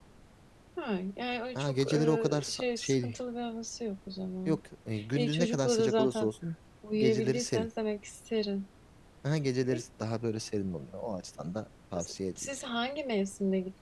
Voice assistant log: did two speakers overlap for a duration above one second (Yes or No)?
Yes